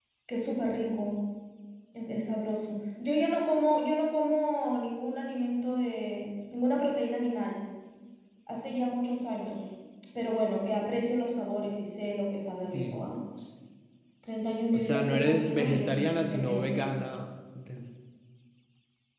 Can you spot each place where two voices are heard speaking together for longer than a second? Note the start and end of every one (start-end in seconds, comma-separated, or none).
14.7-17.0